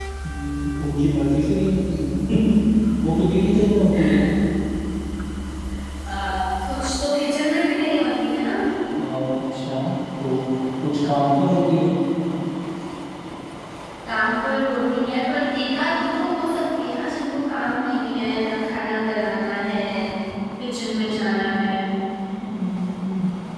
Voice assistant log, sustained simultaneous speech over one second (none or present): none